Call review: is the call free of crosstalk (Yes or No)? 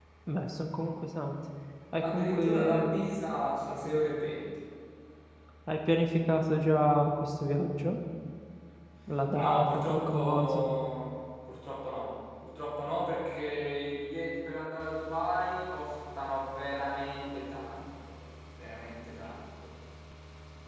No